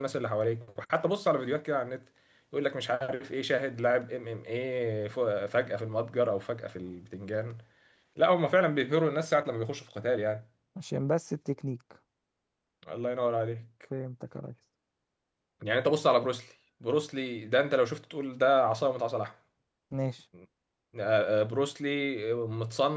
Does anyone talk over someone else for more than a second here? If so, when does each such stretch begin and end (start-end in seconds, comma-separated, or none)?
none